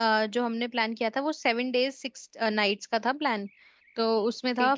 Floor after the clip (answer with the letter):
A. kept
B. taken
A